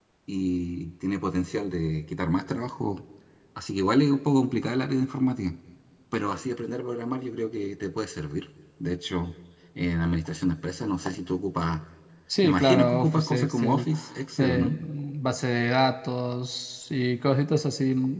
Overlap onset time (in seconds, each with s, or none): 12.4 s